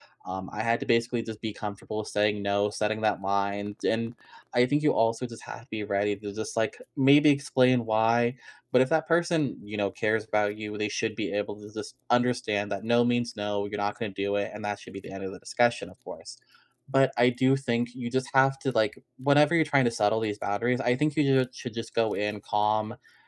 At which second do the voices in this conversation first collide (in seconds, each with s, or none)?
none